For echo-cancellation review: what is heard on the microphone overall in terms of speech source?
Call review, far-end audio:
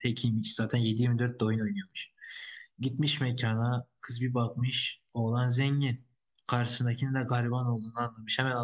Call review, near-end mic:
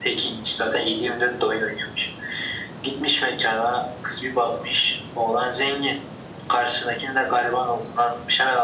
echo only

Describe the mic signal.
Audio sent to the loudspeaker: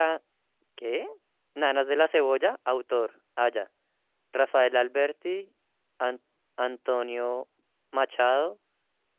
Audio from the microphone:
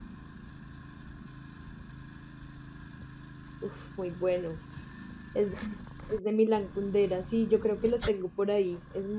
user only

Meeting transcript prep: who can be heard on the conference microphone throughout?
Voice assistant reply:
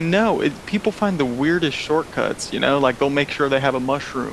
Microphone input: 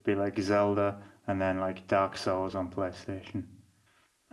user only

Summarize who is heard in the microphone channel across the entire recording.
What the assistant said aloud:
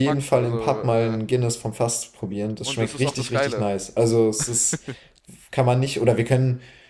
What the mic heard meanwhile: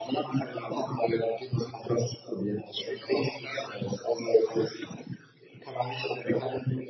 echo only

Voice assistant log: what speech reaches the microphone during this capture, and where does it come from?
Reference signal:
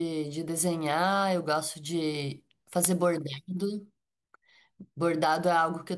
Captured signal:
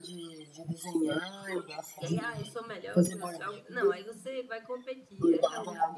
both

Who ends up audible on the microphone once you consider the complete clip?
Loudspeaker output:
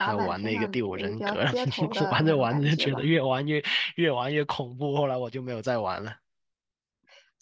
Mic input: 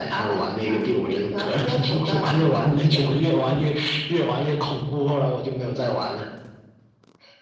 echo only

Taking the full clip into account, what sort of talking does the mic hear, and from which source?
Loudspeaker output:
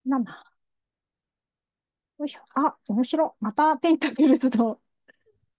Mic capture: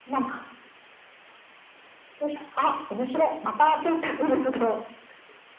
echo only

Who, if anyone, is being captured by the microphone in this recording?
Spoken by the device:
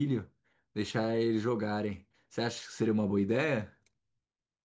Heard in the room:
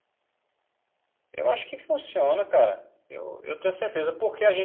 user only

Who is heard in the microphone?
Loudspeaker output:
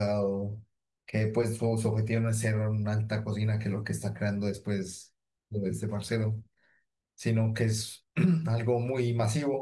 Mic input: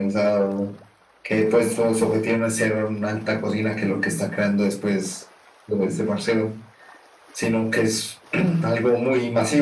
echo only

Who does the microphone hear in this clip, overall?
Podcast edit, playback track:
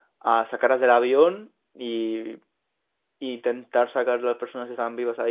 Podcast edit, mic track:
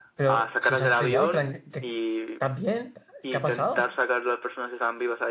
both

